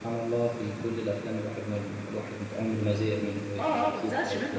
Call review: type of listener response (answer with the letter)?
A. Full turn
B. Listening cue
A